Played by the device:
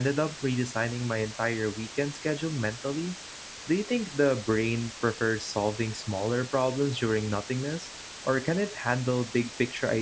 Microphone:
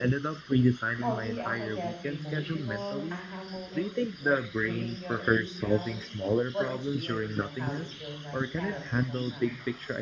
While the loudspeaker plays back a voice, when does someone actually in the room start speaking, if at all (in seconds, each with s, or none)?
1.0 s